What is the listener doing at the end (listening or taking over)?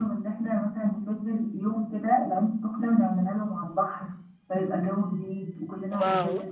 taking over